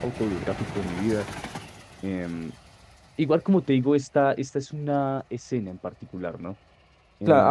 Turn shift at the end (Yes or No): Yes